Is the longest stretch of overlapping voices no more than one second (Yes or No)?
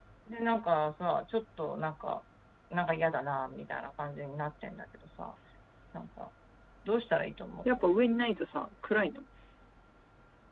Yes